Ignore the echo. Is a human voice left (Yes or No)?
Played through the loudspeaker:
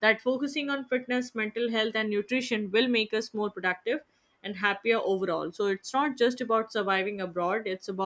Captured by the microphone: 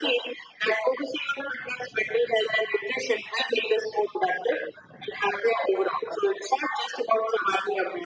No